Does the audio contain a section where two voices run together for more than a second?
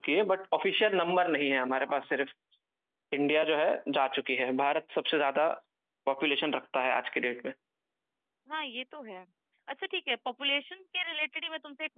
No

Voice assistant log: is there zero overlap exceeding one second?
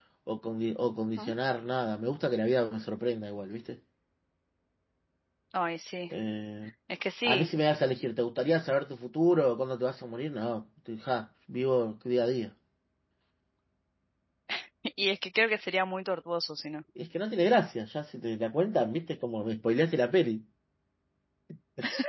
Yes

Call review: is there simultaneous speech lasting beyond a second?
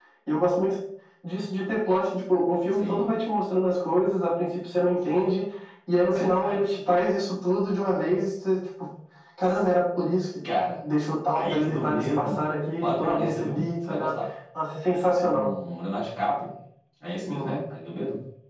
Yes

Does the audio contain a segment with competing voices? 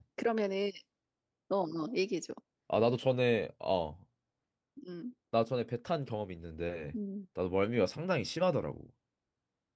No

